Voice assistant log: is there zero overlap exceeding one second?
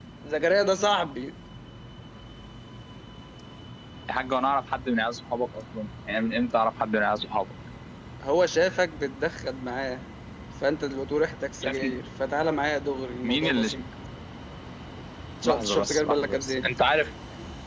No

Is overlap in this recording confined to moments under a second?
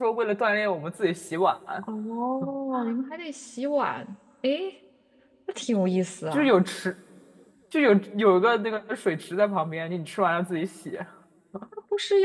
Yes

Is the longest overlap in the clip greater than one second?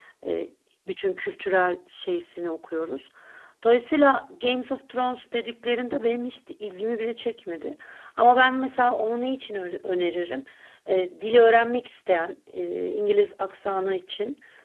No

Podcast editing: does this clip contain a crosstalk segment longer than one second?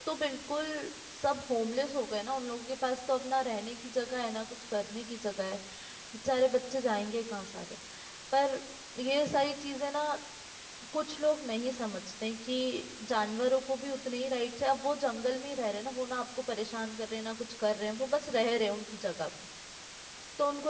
No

